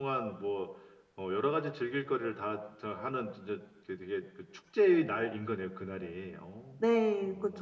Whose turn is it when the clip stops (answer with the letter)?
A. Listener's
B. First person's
A